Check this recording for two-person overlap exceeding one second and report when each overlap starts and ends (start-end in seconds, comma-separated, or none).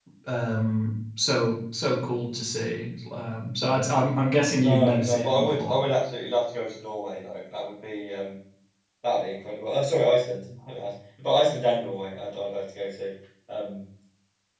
4.5-5.8